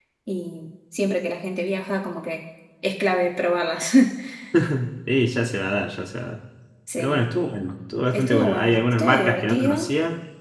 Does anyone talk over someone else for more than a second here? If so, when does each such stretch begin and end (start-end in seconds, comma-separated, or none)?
8.1-9.9